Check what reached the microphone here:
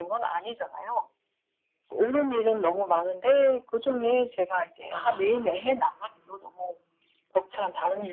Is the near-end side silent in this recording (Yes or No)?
No